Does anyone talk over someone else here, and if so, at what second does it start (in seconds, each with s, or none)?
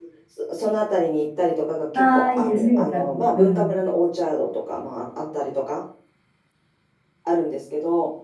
1.9 s